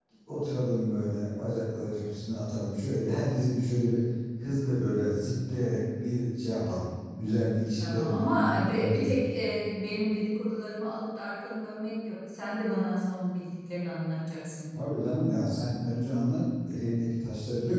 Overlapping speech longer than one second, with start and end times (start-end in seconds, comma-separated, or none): 7.8-9.2